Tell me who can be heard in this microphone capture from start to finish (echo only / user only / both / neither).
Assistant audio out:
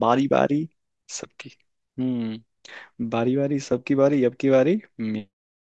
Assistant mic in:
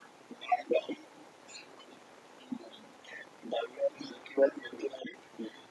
echo only